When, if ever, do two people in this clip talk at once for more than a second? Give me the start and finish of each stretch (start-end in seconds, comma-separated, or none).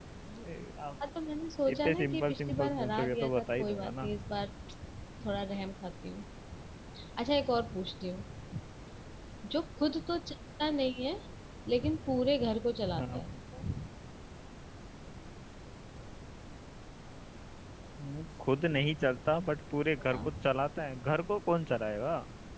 1.7-4.1